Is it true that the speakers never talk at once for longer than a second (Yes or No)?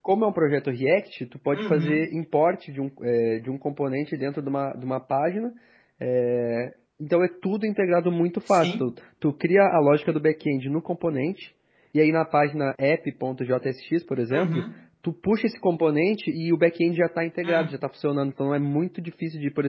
Yes